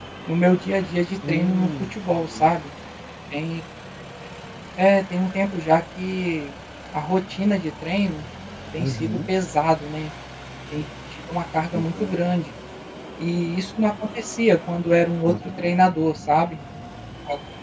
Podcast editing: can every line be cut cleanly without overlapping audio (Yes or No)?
No